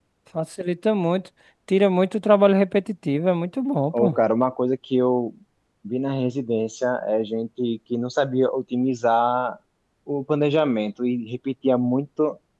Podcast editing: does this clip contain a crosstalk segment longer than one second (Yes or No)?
No